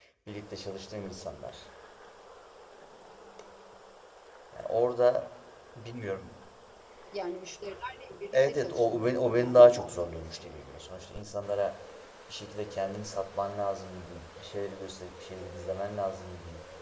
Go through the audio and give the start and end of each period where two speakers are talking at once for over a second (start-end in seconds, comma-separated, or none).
8.3-10.2